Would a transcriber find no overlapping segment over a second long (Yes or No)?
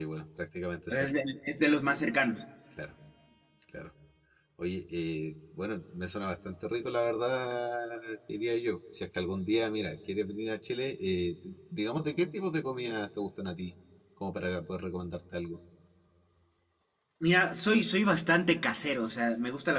Yes